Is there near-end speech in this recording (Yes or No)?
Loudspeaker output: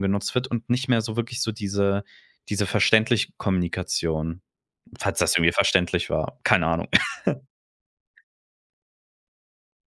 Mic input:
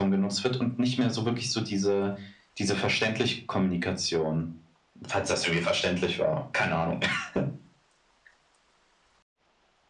No